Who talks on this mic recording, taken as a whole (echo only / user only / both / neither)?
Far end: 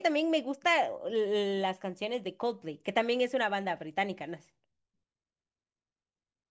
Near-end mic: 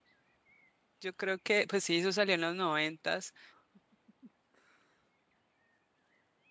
user only